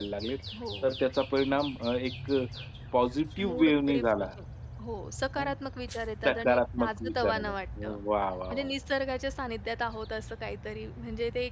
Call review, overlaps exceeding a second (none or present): present